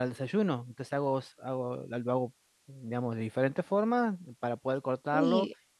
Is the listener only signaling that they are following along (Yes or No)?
Yes